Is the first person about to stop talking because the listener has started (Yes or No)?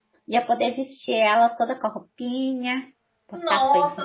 Yes